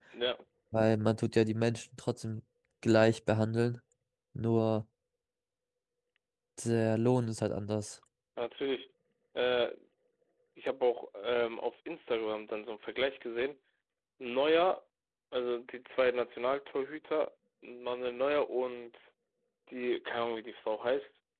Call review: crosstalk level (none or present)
none